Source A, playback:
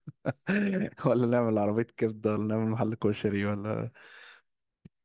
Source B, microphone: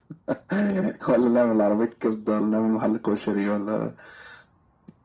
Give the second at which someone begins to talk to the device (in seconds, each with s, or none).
none